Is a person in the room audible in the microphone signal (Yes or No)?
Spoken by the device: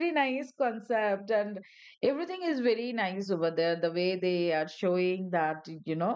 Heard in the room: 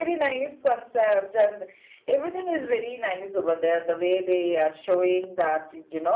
No